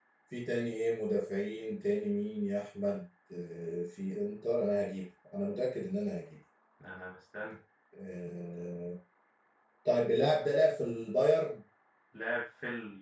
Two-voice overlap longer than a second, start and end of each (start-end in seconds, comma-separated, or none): none